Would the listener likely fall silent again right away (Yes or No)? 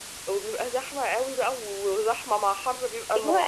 No